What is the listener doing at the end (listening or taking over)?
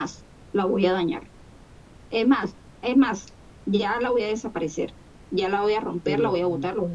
listening